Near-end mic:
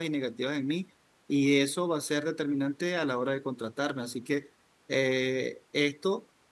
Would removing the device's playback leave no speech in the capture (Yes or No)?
No